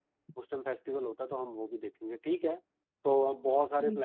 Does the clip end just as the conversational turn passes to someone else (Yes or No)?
No